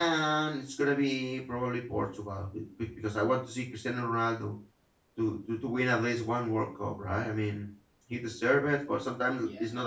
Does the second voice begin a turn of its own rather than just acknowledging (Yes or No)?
No